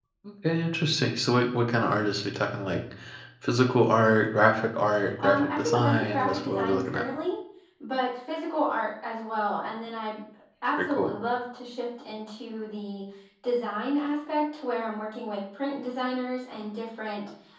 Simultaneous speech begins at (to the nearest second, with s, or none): 5 s